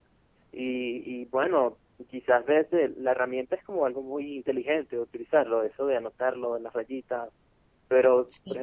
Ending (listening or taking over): listening